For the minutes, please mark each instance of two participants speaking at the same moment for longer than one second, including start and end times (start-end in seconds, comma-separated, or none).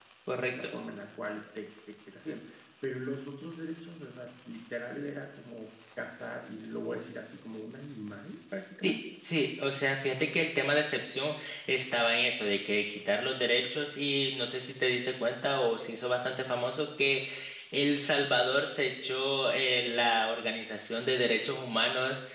none